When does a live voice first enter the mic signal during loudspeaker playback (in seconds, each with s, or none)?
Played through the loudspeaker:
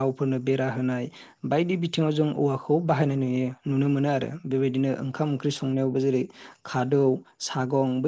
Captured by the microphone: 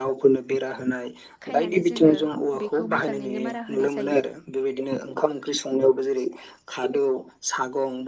1.5 s